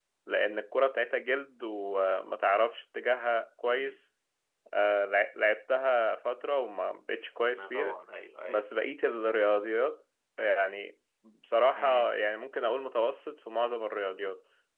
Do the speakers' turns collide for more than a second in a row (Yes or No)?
No